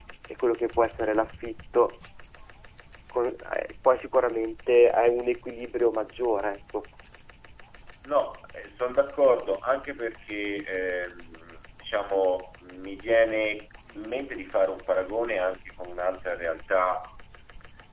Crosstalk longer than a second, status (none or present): none